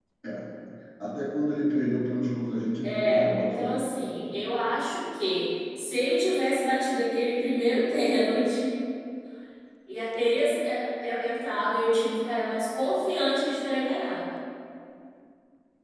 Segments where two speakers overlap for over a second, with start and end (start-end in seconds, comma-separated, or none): 2.8-4.4